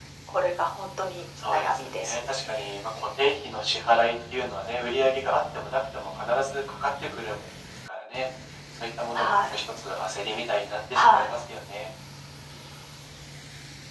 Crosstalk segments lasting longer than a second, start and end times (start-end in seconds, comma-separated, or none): 1.5-2.7